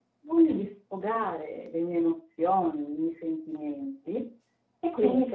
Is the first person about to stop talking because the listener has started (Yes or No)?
No